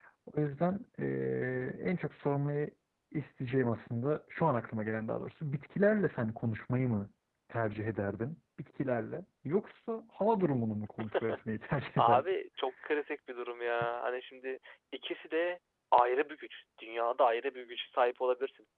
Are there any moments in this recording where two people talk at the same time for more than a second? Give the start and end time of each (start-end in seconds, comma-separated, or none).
none